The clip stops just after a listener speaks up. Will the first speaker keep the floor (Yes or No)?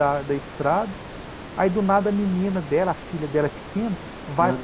Yes